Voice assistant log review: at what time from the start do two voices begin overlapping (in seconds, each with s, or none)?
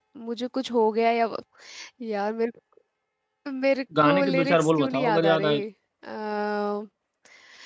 4.0 s